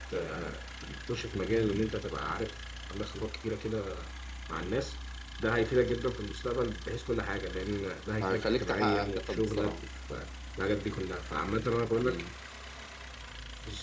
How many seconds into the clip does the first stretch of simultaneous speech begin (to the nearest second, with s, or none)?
8 s